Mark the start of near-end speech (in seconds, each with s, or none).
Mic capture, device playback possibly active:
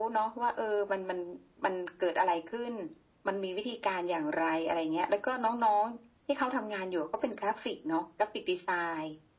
none